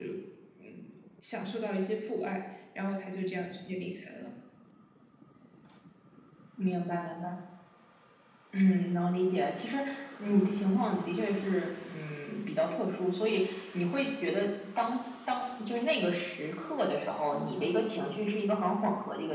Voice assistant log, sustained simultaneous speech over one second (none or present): none